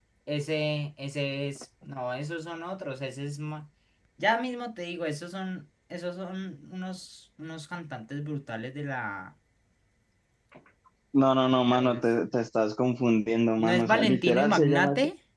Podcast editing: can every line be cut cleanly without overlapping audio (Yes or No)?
No